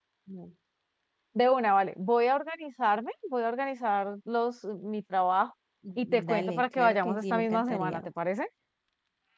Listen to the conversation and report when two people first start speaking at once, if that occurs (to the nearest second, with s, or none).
6 s